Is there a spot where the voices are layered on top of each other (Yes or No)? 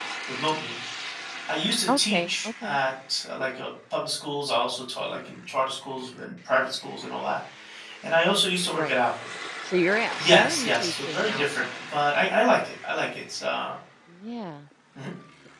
Yes